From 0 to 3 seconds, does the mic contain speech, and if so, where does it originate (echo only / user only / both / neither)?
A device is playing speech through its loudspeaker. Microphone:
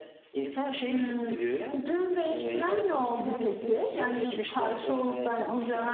echo only